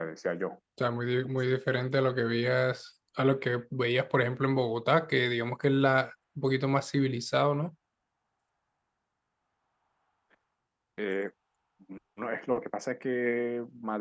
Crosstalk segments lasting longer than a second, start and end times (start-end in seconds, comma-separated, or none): none